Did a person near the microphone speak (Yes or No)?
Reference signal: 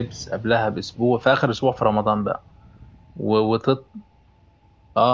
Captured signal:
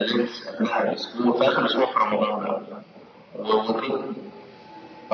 No